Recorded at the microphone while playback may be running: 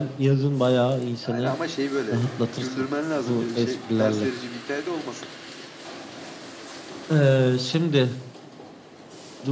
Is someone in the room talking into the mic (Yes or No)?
Yes